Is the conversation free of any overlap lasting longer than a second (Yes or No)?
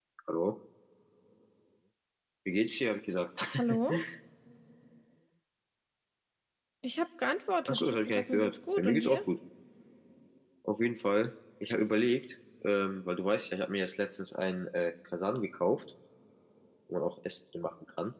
No